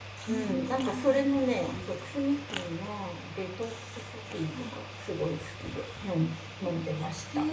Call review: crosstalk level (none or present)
present